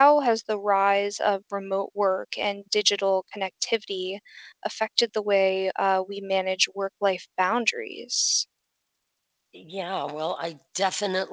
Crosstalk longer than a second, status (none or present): none